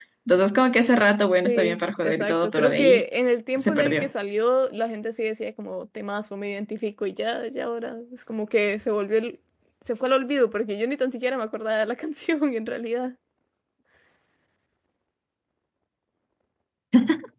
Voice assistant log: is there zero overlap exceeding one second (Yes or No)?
No